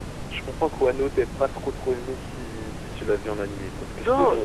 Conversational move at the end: taking over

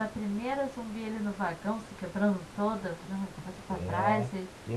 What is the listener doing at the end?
taking over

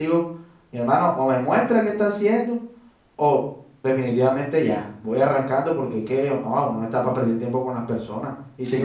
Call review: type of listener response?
taking over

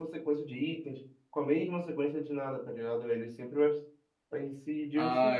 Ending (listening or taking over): taking over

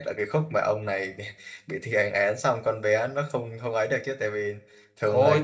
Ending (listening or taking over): taking over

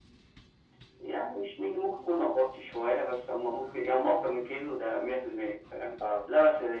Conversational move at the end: listening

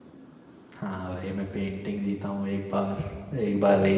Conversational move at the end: listening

